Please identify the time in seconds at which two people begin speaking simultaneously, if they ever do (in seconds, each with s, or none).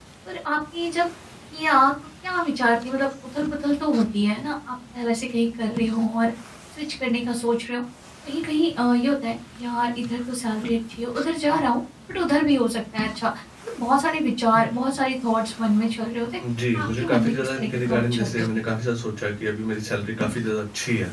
16.8 s